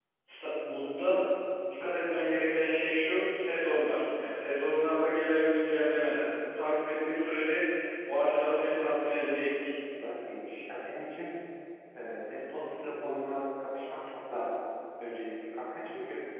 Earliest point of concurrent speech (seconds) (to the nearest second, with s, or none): none